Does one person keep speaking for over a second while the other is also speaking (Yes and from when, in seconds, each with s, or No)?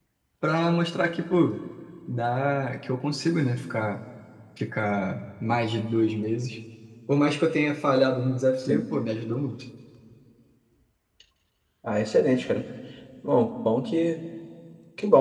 No